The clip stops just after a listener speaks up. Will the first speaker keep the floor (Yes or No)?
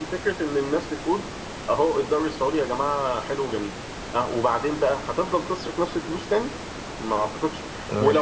Yes